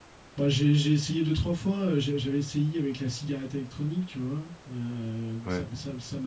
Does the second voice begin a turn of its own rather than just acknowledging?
No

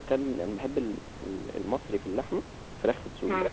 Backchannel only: No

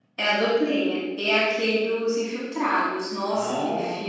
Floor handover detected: Yes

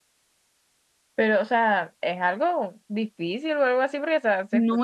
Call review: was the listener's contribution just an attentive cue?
No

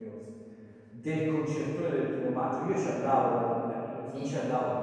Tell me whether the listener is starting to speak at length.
No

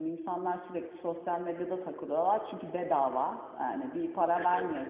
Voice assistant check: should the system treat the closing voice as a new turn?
No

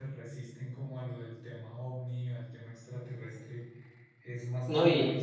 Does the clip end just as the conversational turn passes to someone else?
Yes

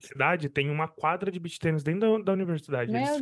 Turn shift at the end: No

